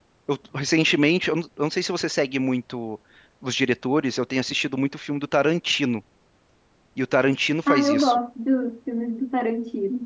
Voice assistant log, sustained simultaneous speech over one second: none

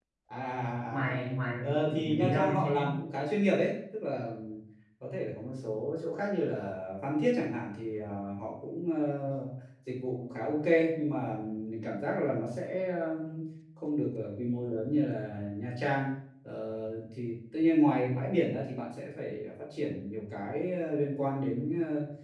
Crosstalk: present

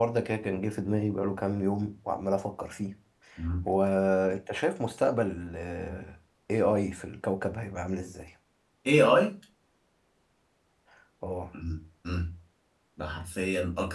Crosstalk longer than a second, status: none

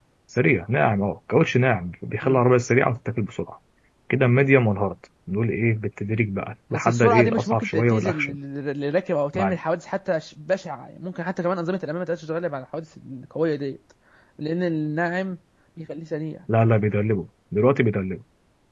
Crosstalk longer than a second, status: present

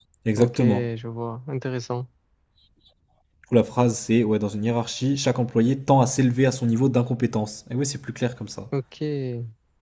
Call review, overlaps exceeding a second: none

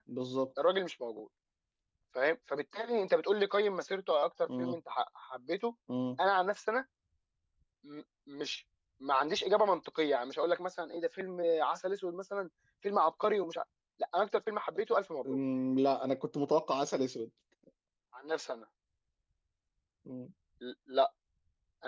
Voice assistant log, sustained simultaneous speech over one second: none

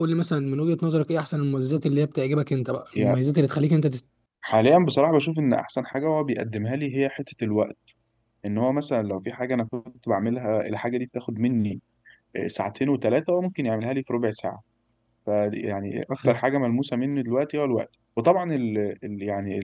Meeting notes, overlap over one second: none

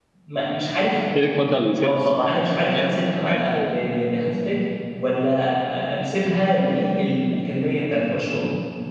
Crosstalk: present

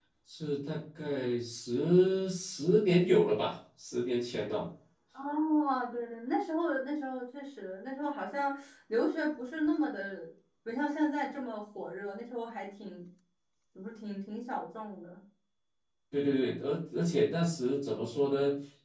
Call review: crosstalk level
none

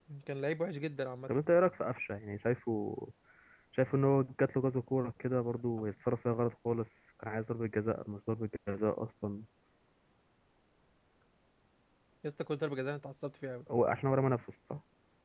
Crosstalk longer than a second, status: none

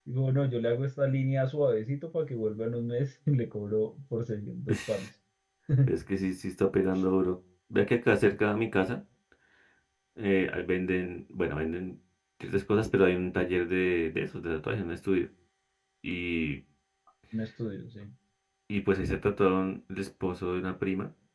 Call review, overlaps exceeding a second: none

